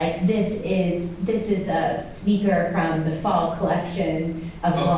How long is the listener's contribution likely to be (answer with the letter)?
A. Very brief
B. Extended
B